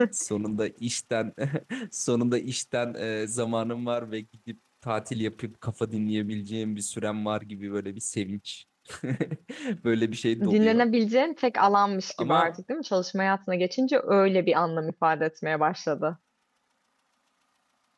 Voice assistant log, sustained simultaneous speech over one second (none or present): none